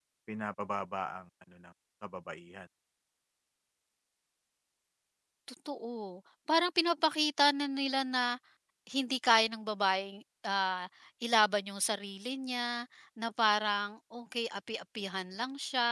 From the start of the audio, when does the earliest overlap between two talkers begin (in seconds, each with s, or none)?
none